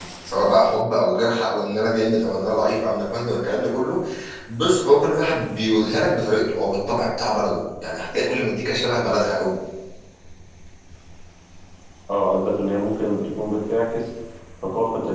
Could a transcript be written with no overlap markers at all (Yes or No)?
Yes